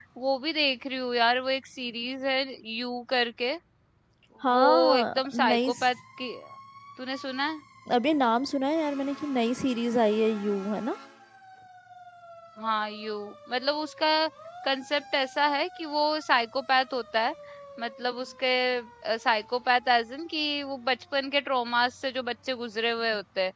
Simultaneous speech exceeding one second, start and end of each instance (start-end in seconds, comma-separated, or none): 4.6-5.9